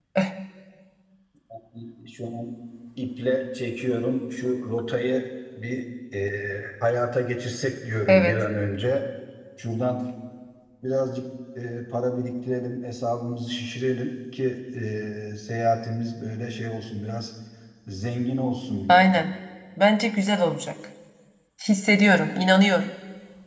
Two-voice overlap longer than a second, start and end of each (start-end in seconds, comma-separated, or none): none